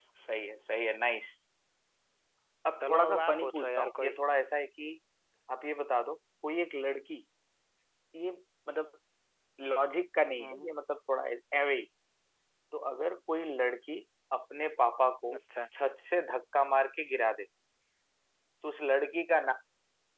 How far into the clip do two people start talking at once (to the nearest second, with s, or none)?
3 s